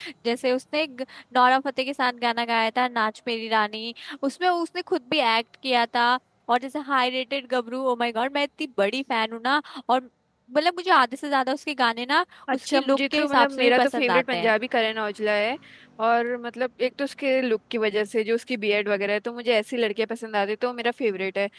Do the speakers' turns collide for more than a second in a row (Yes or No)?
Yes